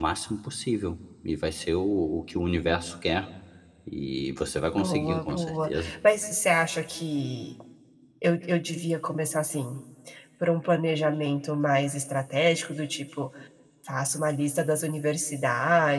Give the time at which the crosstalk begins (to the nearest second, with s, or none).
5 s